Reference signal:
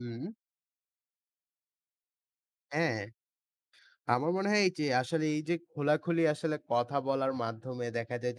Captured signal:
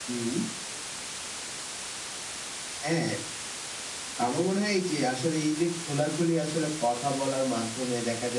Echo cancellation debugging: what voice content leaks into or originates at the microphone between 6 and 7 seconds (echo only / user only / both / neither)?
echo only